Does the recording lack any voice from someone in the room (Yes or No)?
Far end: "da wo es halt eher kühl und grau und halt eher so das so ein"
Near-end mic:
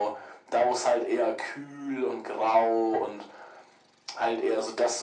Yes